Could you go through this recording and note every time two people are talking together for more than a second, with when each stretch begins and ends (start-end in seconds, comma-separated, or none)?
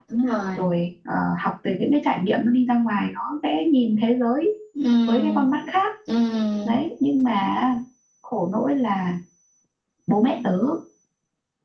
none